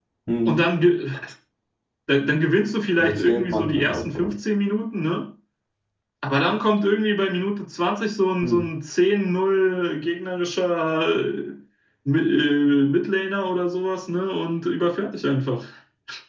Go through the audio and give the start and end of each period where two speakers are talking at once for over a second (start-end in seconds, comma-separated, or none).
3.0-4.3